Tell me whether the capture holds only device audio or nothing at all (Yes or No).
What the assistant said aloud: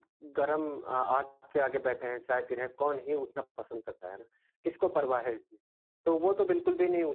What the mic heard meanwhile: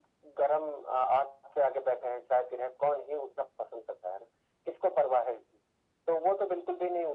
Yes